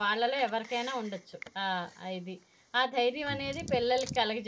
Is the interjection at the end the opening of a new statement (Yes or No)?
No